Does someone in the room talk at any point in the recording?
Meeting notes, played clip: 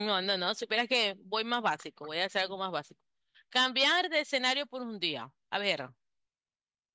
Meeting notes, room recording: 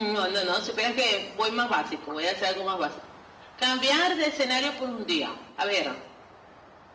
No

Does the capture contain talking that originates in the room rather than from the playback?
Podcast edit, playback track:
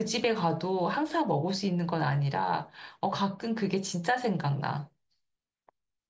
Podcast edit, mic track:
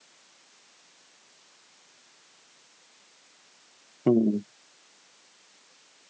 Yes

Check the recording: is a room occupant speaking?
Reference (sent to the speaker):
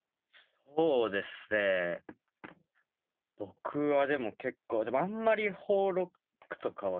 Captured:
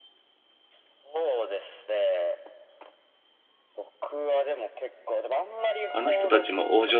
Yes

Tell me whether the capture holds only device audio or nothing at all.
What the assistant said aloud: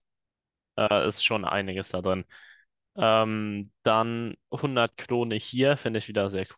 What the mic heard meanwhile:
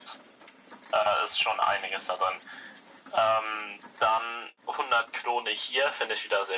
Yes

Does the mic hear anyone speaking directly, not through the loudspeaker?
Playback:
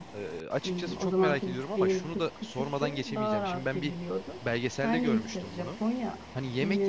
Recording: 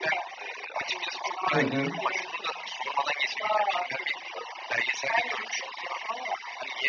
Yes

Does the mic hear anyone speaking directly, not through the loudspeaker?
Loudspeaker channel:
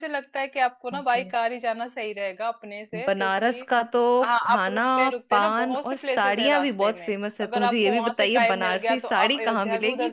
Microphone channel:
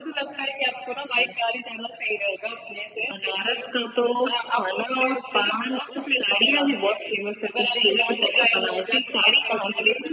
No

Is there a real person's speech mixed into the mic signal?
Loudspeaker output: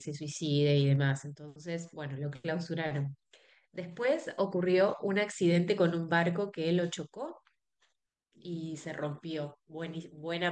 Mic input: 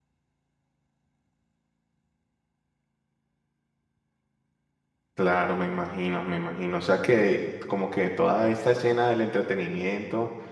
Yes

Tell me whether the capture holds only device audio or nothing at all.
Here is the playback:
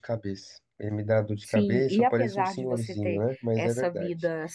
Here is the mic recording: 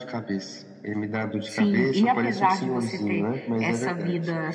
Yes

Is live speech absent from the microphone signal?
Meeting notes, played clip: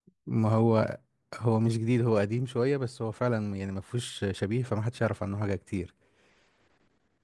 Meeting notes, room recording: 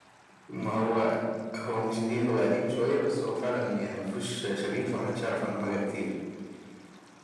Yes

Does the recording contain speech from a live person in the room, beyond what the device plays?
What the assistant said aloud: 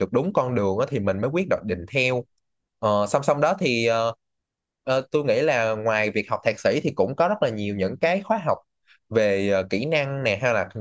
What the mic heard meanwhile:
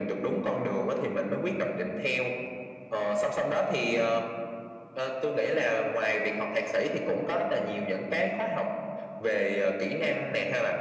No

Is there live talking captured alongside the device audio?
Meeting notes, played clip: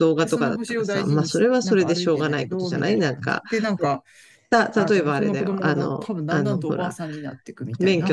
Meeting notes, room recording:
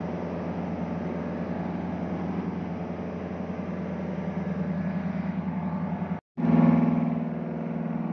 No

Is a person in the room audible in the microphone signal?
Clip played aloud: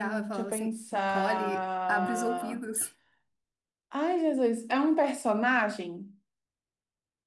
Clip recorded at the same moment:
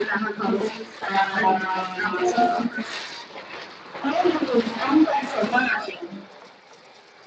No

